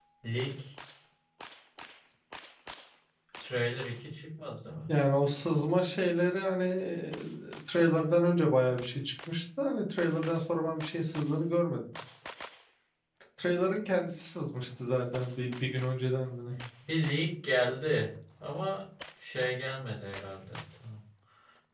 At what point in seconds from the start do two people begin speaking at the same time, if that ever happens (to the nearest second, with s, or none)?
none